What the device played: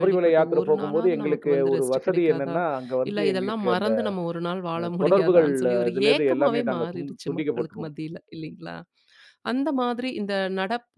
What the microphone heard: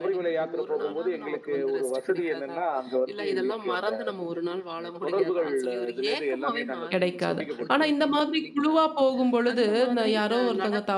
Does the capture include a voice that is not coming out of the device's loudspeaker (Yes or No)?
Yes